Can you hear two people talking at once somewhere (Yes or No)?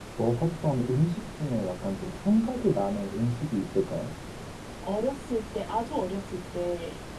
No